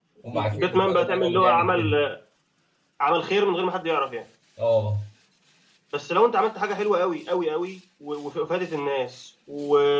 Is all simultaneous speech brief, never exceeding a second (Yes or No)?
No